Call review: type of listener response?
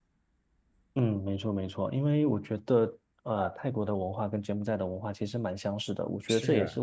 listening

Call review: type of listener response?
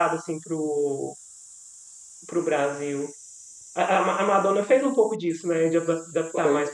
listening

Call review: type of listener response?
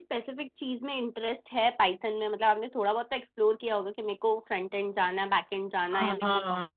taking over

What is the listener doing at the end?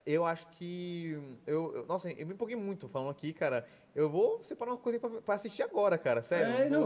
taking over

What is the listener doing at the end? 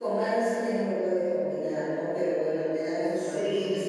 listening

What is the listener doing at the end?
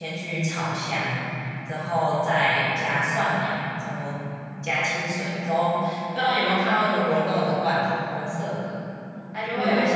listening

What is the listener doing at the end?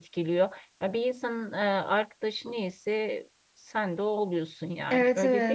taking over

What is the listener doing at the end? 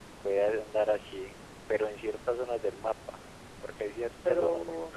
listening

